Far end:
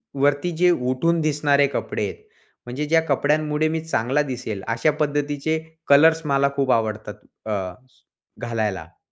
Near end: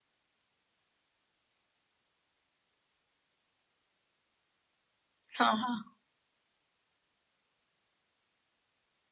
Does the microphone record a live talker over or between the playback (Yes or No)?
Yes